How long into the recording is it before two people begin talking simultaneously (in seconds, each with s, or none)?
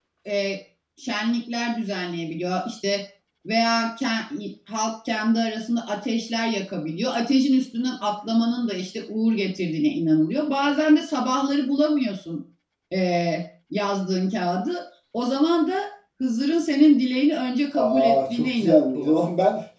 17.7 s